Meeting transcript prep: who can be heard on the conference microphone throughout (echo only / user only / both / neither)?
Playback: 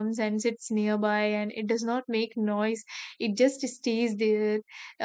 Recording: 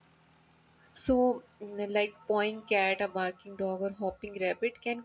user only